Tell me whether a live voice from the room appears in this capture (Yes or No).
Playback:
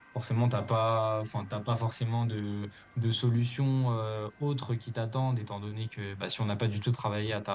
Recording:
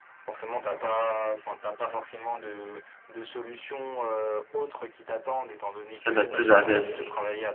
Yes